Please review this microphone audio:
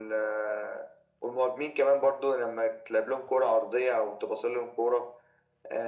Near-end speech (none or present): none